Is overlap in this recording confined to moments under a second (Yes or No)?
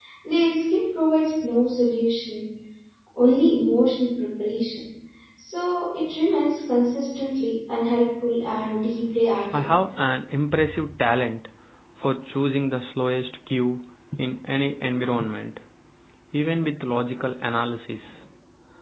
Yes